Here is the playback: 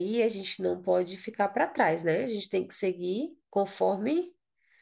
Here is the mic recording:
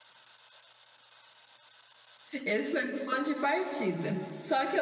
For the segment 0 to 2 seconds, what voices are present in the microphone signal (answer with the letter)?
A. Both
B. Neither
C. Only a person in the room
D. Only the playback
B